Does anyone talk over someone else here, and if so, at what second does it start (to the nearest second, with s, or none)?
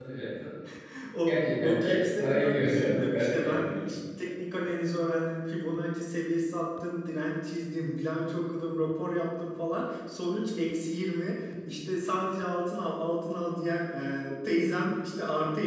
1 s